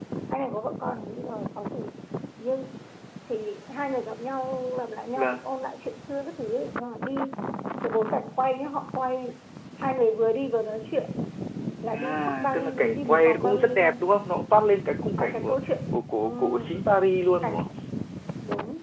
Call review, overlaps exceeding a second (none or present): present